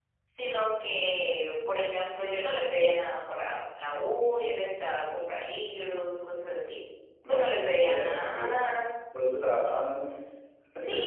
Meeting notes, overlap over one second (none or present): present